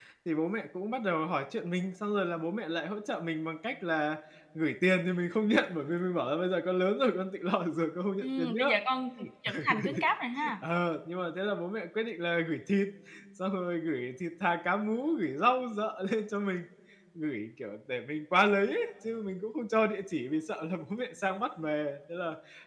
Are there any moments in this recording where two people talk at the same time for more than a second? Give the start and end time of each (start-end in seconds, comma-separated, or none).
none